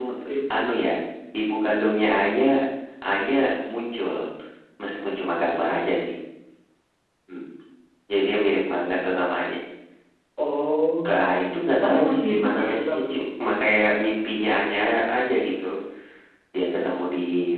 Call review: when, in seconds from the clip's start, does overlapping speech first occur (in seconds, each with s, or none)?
11.8 s